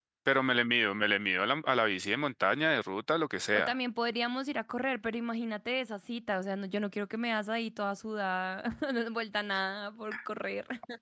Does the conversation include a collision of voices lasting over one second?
No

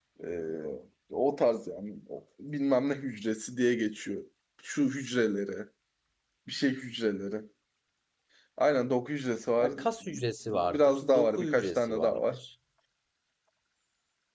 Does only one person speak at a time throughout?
No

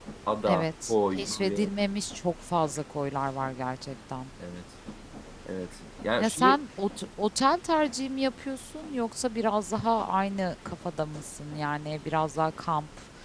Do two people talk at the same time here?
Yes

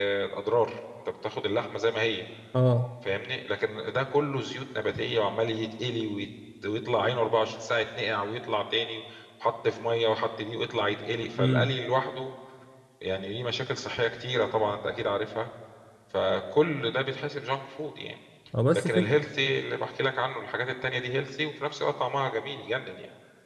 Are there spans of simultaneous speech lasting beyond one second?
No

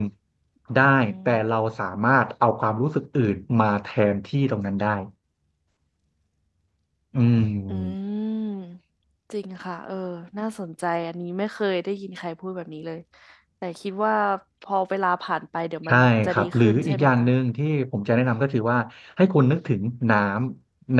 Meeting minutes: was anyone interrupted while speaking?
Yes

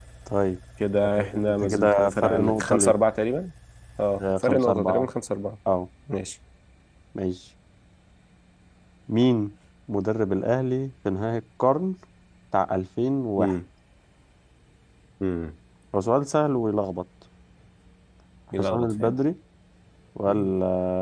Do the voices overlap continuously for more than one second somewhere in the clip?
Yes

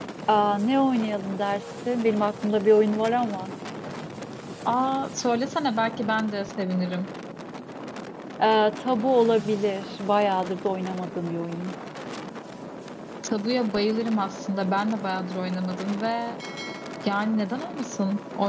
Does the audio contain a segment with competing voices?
No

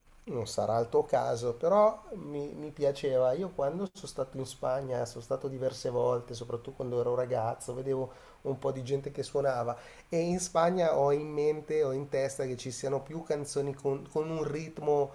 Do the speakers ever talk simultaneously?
No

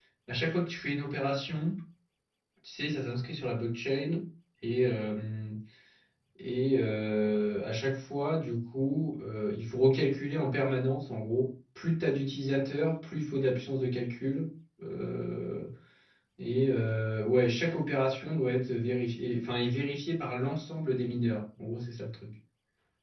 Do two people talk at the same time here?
No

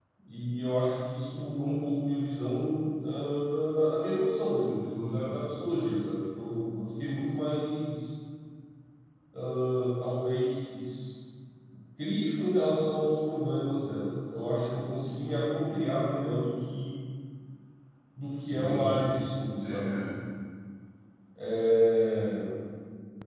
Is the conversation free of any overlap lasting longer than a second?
Yes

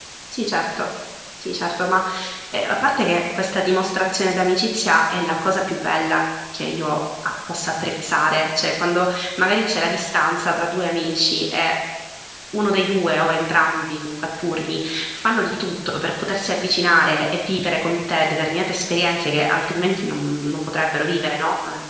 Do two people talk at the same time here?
No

